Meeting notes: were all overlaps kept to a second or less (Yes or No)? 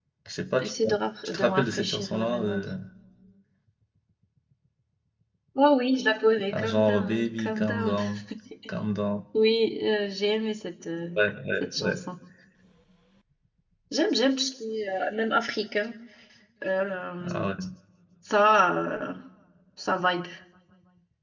No